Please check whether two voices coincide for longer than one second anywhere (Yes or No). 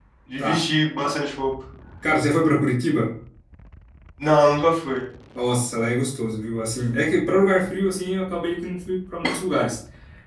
No